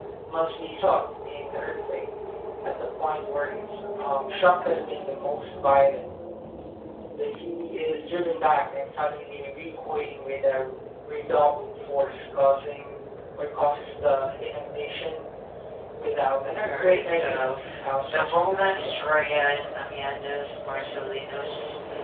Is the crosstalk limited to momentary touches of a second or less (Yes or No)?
No